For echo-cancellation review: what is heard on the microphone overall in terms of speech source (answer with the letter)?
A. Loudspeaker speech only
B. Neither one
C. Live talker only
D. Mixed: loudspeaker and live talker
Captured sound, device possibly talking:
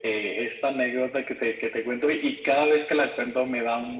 A